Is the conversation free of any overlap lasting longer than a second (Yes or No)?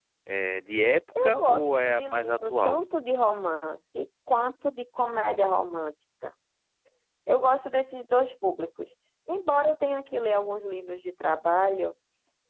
No